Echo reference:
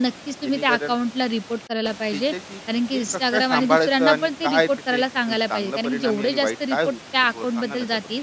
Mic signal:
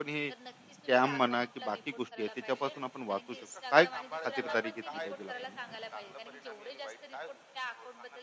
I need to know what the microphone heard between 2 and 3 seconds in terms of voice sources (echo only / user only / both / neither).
both